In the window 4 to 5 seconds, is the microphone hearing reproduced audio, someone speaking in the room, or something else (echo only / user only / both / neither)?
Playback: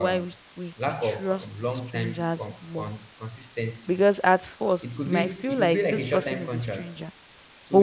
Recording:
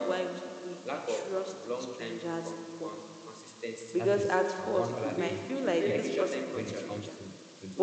both